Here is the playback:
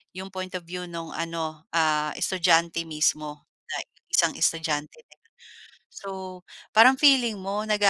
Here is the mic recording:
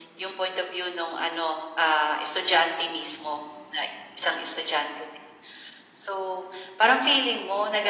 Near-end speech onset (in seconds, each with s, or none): none